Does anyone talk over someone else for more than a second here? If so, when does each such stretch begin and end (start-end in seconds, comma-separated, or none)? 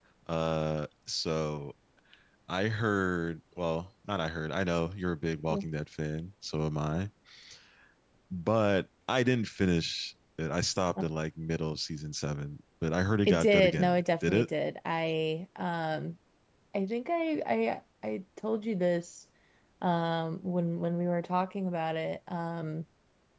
13.3-14.5